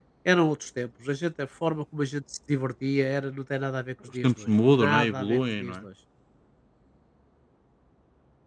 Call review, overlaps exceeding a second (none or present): present